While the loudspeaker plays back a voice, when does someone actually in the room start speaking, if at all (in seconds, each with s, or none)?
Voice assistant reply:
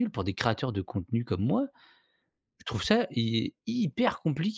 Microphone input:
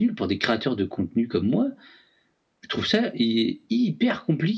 none